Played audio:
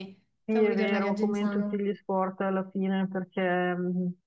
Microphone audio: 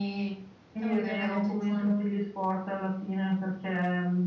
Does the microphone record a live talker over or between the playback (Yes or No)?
No